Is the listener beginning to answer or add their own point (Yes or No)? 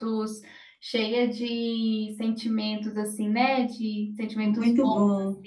Yes